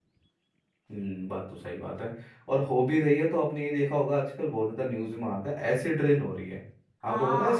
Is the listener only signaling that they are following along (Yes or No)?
No